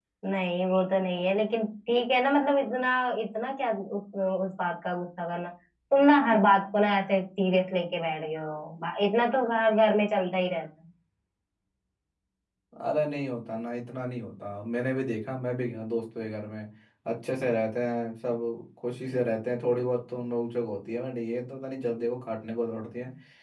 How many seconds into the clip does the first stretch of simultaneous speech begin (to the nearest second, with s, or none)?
none